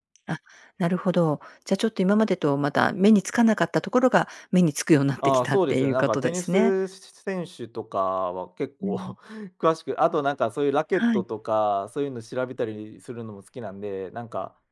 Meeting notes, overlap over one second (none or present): present